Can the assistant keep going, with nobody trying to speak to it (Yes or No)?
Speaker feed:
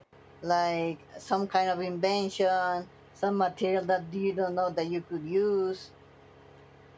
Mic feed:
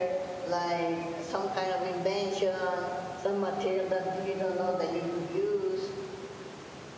Yes